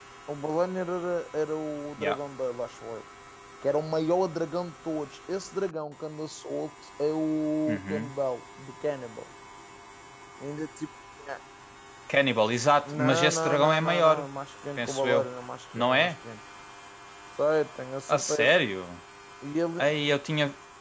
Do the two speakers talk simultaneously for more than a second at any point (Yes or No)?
Yes